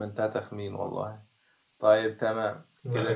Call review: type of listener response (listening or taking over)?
listening